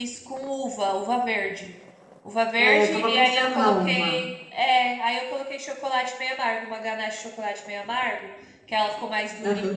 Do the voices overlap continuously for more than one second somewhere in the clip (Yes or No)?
Yes